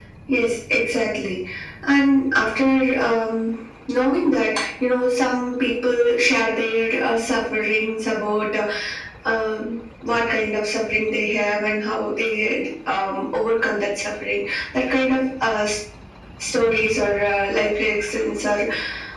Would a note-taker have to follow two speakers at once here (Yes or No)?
No